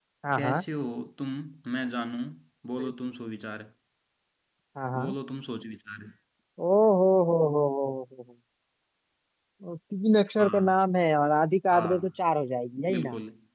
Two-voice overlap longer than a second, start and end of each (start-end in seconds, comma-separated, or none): none